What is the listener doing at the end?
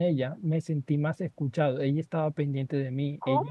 listening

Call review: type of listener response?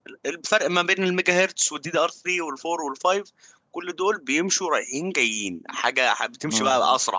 listening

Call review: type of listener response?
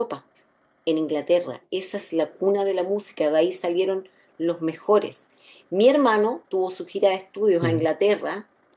listening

